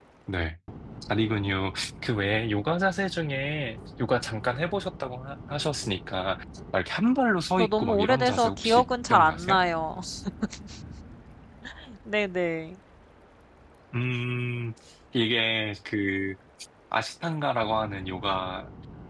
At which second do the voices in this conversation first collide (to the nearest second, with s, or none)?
8 s